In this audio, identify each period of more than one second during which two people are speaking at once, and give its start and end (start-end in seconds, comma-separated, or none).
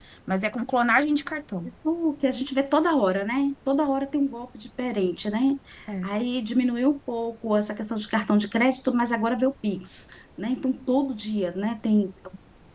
none